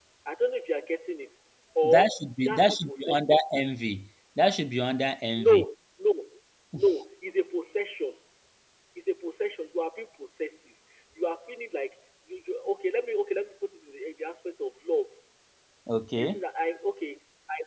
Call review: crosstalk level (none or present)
present